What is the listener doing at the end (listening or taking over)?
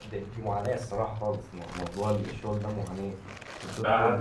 taking over